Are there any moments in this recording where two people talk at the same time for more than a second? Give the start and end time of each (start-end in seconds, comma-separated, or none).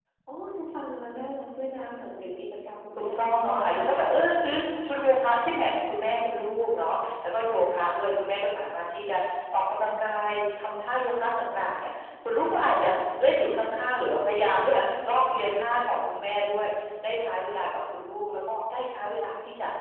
3.0-5.0